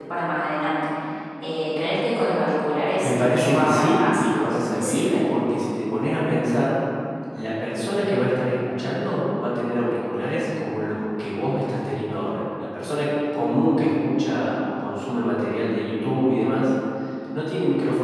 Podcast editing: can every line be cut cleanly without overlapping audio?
No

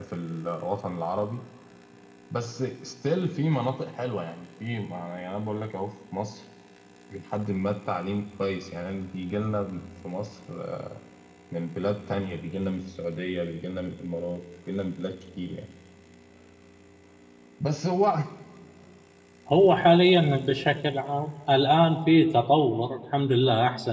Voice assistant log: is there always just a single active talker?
Yes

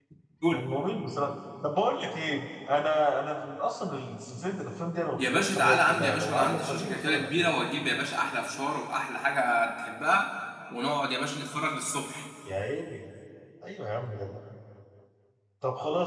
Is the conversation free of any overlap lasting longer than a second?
No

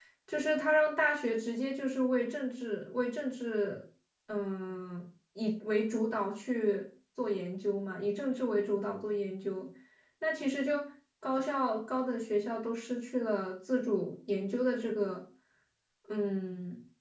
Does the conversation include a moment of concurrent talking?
No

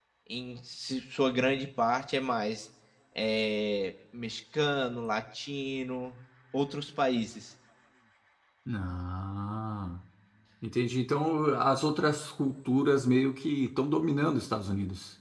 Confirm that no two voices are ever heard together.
Yes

